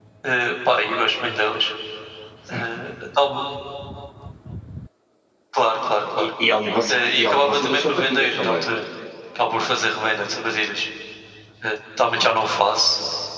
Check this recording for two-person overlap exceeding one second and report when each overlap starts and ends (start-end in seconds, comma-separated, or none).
6.9-8.6